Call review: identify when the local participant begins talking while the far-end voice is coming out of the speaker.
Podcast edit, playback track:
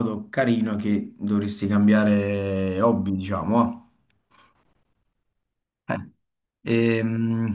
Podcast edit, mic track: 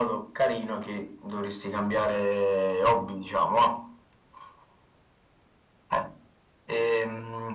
none

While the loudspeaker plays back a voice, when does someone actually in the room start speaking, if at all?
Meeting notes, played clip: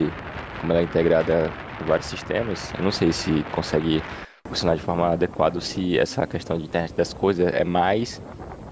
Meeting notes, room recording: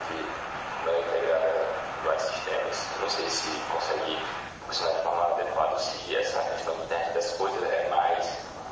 none

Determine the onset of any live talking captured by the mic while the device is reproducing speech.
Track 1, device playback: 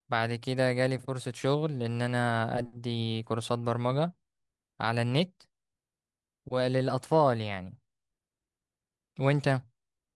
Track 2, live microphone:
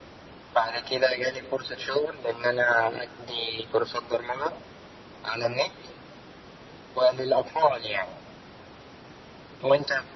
none

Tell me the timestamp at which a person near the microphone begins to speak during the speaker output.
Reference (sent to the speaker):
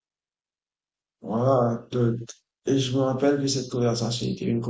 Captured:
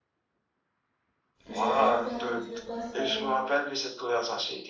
1.5 s

